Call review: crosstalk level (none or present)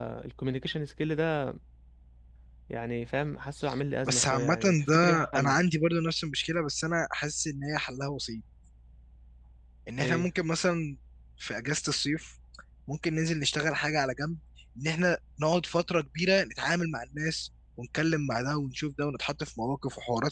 present